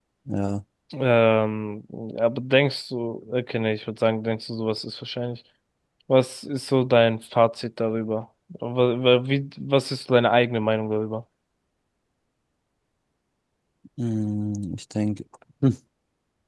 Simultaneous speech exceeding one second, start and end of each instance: none

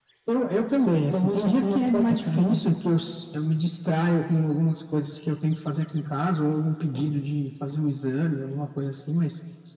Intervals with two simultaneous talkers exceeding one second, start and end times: 1.1-2.6

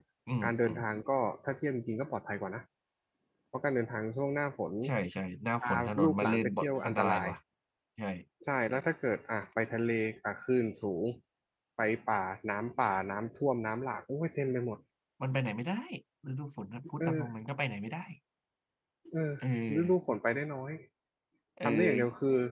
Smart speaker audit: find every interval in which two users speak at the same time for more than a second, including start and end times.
5.6-7.3

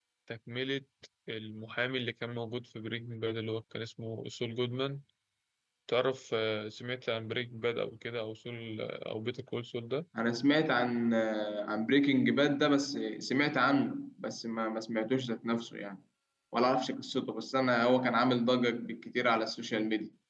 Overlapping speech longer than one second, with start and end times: none

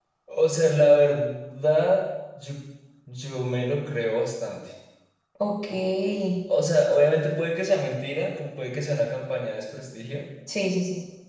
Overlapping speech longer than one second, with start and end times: none

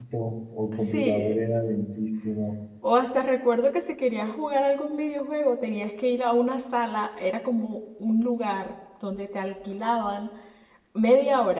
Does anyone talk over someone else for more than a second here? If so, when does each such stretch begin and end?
none

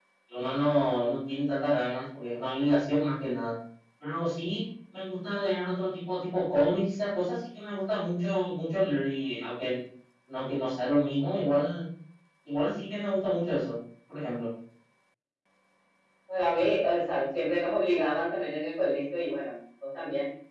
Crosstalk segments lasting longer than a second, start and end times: none

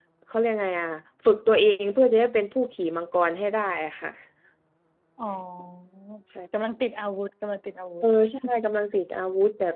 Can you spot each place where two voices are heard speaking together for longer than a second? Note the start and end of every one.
none

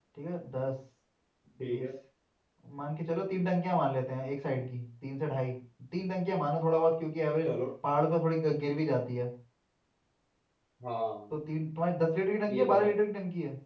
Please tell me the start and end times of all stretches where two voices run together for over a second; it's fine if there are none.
none

